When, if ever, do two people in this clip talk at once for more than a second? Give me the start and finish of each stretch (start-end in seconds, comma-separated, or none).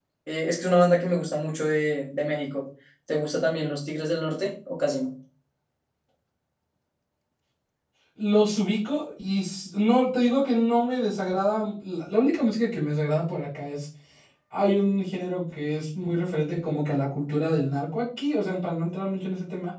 none